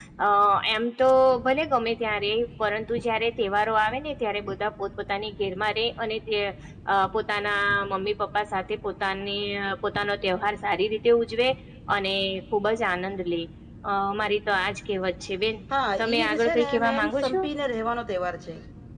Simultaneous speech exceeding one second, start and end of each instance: 16.0-17.4

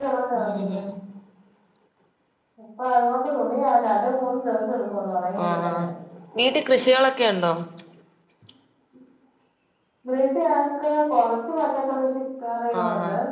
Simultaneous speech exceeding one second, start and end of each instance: none

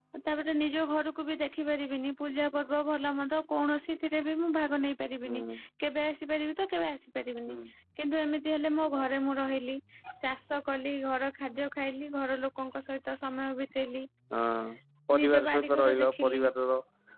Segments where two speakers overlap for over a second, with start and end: 15.2-16.4

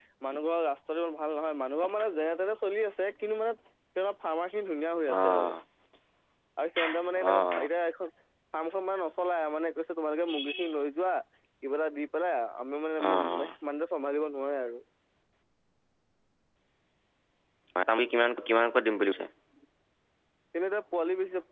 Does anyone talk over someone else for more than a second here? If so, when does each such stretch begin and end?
none

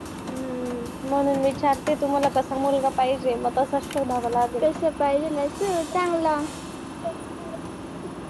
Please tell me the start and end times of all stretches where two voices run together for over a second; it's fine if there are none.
none

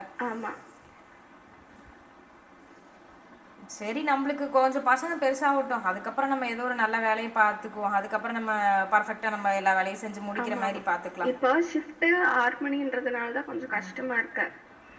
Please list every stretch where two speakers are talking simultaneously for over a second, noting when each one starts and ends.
none

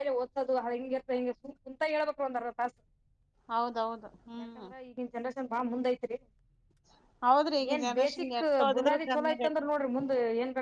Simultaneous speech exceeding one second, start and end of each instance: 7.7-9.5

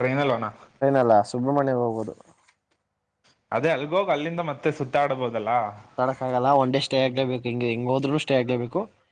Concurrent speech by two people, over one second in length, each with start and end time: none

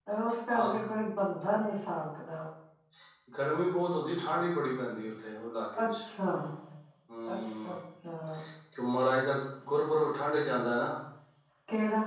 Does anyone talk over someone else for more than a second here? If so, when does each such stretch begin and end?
none

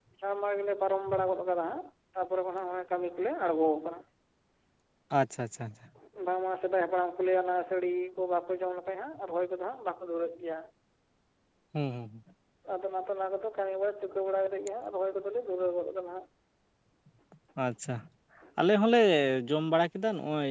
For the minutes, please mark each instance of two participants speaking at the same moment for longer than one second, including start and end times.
none

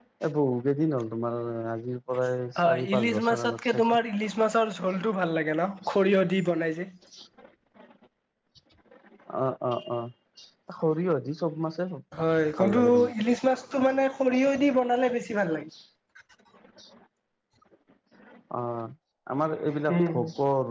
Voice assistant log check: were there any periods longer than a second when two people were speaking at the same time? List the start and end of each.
2.6-3.8

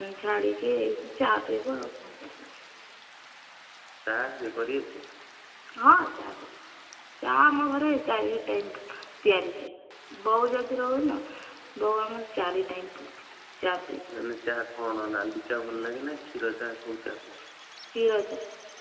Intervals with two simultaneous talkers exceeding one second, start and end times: none

